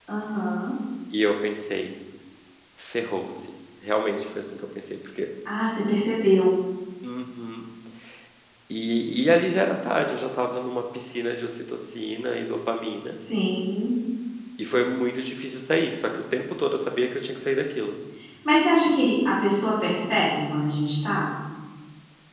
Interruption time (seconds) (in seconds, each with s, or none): none